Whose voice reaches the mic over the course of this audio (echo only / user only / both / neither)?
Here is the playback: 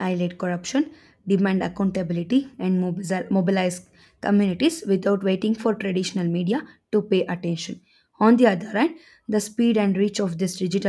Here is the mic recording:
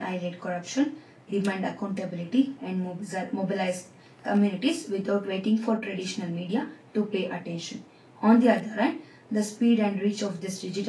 echo only